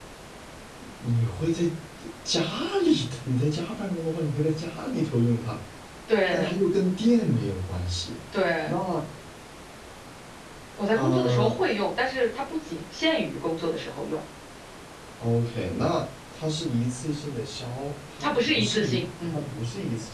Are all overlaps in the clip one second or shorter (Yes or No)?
No